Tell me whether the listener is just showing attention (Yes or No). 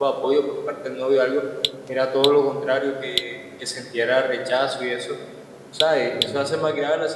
Yes